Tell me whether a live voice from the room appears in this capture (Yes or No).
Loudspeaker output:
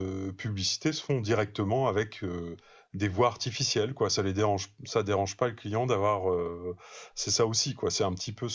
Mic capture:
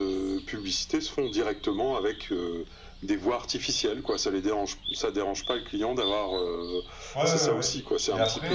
Yes